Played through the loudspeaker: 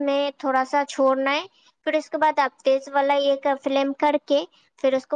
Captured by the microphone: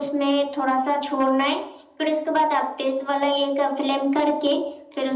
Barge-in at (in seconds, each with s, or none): none